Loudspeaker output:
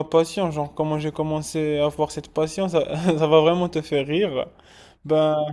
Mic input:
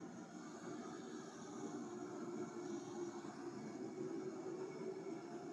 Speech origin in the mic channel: neither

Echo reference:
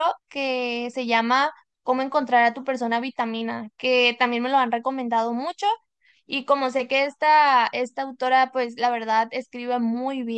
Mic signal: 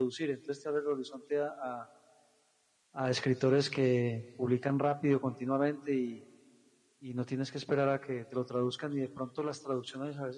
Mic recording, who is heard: user only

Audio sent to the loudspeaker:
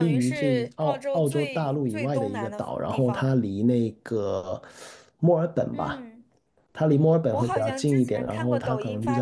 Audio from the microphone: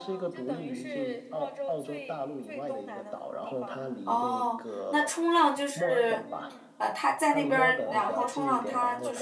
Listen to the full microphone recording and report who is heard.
both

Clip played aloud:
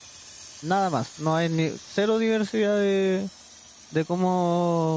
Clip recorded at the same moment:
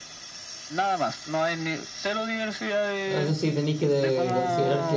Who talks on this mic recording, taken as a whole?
both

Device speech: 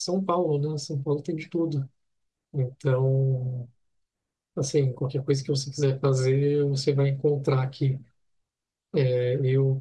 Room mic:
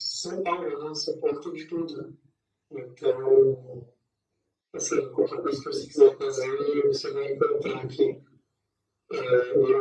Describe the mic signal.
echo only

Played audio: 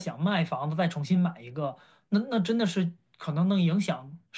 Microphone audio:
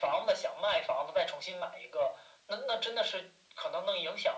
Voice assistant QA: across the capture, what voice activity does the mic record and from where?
echo only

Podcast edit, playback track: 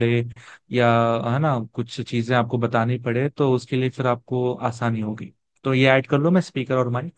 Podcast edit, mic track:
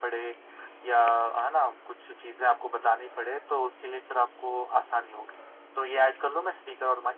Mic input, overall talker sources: echo only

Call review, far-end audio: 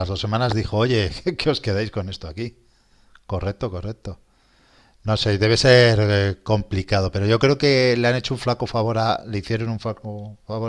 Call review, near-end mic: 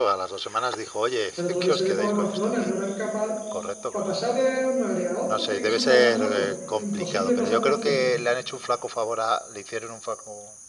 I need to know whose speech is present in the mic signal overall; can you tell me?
both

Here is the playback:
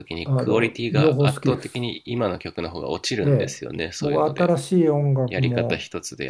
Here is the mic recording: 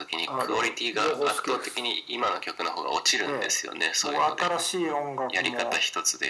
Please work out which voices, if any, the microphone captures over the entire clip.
echo only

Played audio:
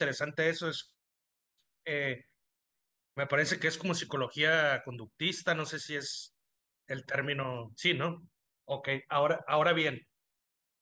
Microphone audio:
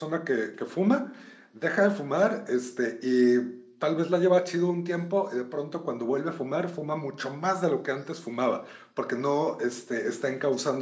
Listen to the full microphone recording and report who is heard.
user only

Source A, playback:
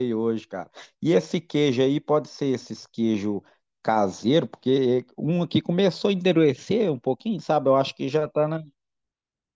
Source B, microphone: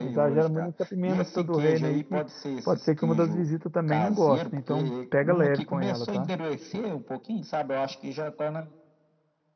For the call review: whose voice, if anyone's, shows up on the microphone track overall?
both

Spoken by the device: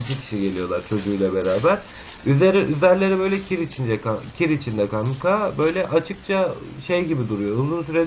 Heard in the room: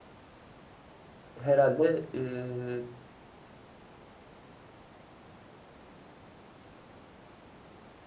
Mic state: user only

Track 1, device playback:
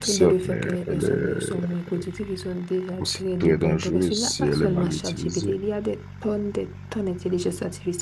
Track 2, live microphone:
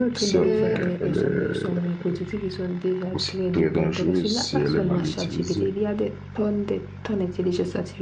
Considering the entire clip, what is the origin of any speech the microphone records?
both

